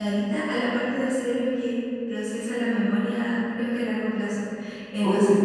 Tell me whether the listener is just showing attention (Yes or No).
Yes